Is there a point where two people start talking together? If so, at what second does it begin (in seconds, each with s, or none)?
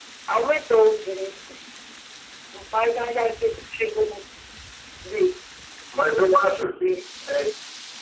none